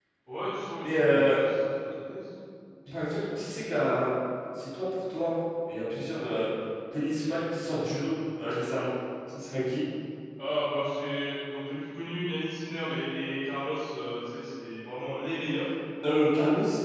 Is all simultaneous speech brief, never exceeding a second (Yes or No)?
Yes